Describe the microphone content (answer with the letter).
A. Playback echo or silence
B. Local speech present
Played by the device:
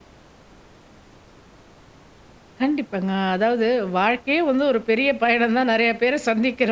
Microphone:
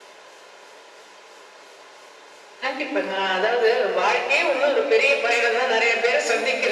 A